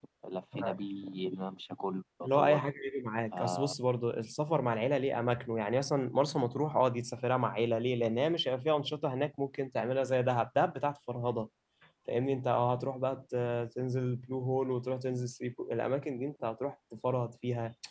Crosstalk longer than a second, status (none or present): none